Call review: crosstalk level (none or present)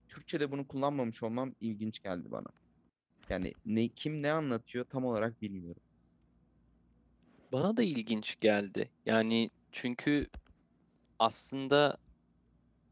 none